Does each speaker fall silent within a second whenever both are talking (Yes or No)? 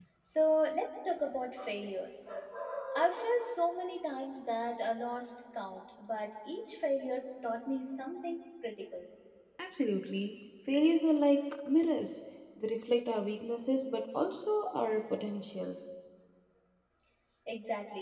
Yes